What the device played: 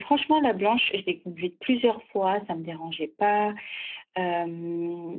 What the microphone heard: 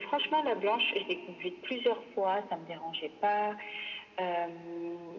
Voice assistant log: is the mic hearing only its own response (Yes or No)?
Yes